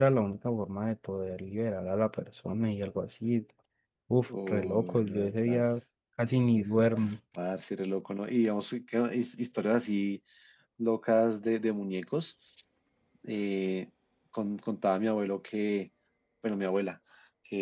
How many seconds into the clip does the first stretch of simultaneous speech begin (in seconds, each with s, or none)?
4.5 s